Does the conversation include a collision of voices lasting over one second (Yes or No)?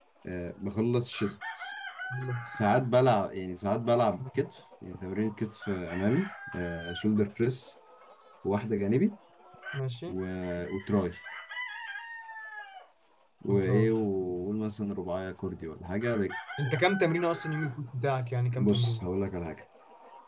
No